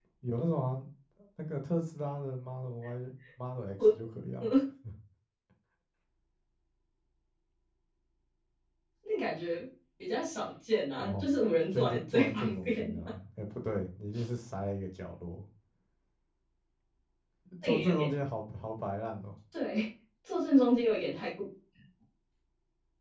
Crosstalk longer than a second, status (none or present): present